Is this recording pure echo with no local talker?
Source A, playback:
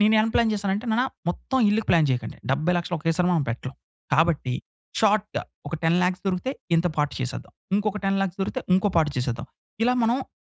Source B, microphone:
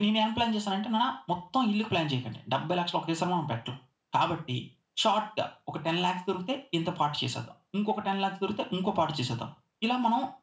Yes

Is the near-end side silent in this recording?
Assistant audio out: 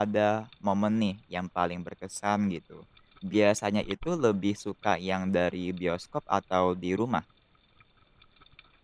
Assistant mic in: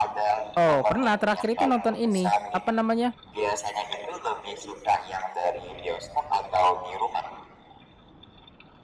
No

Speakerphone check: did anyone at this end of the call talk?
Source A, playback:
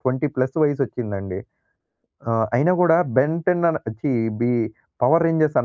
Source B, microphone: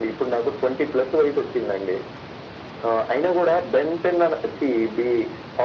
No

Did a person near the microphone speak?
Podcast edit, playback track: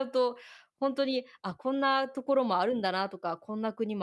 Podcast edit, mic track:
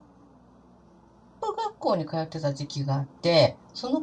Yes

